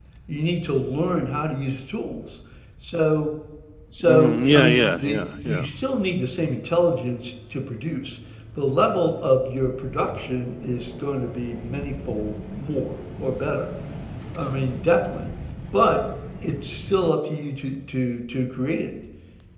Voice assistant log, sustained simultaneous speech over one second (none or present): present